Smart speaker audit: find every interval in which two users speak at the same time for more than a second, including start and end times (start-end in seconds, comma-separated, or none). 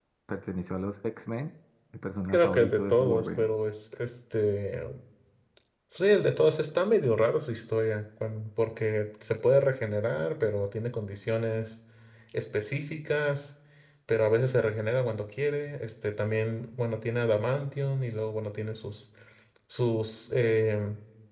2.3-3.5